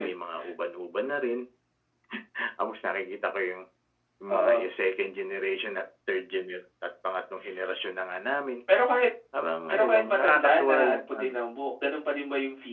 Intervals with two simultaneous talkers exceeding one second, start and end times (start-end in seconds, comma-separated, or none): 9.7-11.3